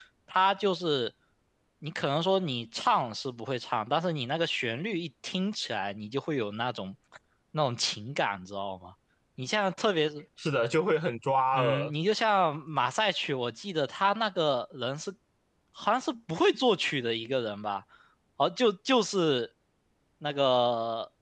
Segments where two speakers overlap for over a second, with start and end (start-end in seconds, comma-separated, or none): none